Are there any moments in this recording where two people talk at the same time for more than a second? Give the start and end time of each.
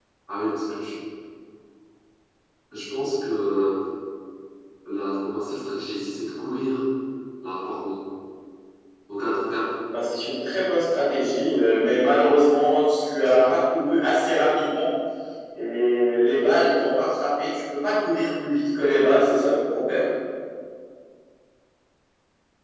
none

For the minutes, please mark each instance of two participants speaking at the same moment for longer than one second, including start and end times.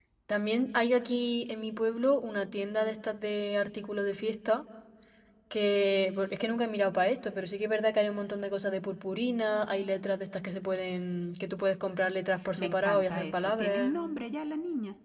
12.6-13.9

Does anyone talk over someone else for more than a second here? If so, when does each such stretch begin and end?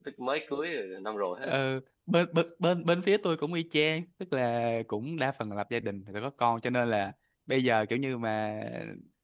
none

